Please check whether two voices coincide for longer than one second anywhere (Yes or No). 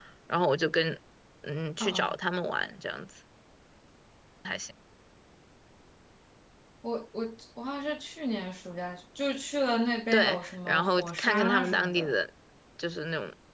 Yes